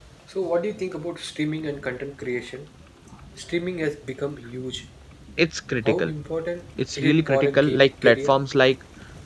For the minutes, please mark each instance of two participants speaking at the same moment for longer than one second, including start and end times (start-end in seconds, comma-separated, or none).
7.0-8.4